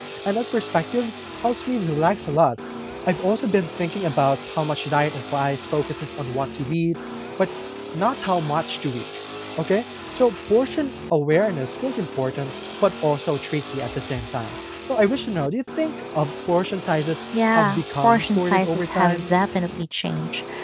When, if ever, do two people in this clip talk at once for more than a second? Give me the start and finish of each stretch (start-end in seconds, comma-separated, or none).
17.5-19.2